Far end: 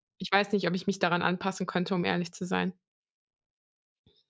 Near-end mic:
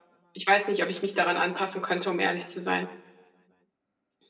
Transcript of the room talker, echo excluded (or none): none